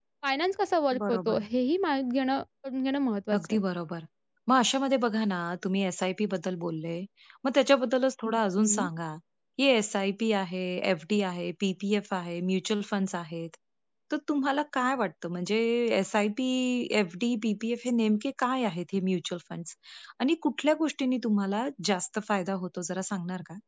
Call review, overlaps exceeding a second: none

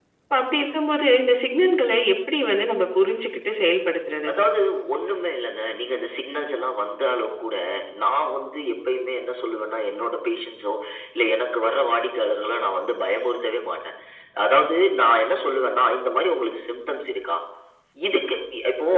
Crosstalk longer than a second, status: none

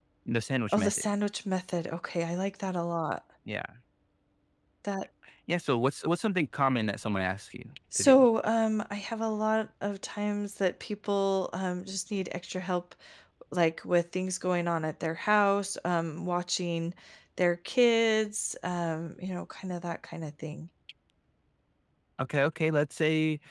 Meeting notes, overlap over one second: none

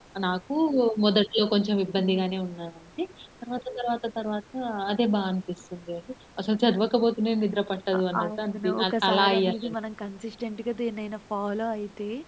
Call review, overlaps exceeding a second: present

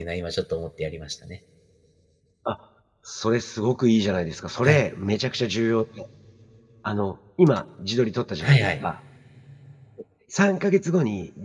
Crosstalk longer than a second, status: none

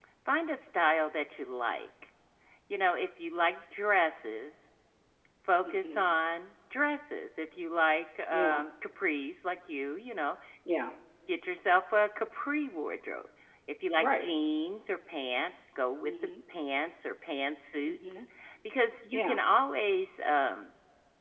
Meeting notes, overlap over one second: none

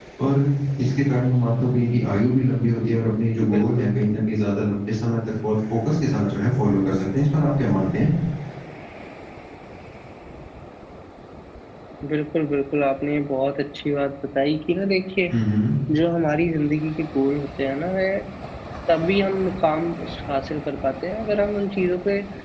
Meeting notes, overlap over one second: none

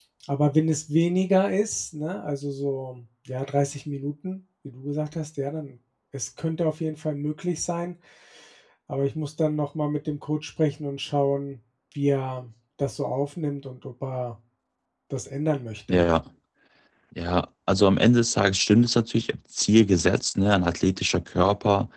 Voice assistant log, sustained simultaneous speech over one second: none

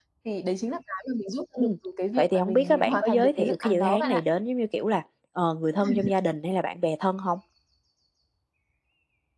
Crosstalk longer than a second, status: present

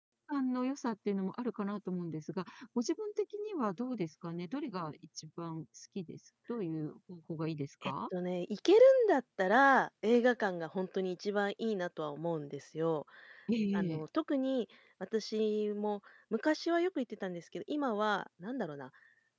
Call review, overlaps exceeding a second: none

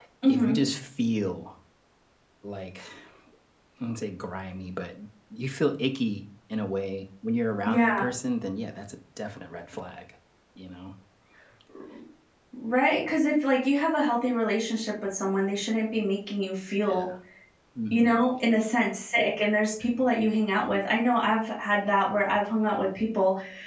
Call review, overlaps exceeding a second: none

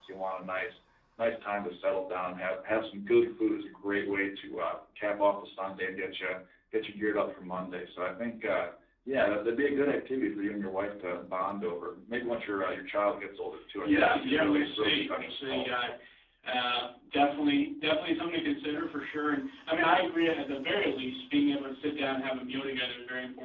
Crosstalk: present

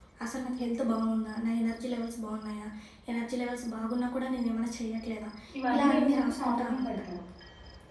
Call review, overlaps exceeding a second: present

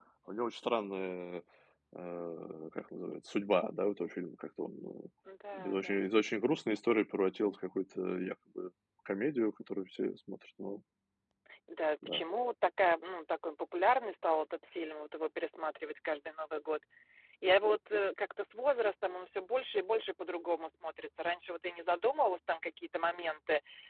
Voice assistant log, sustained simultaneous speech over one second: none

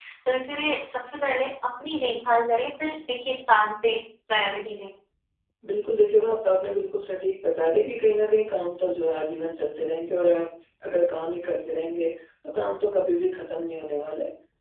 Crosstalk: none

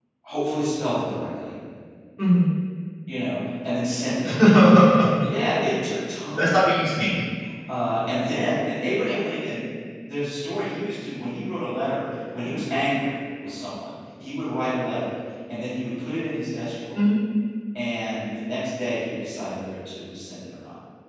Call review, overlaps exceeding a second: none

